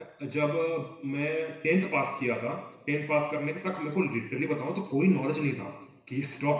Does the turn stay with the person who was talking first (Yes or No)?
Yes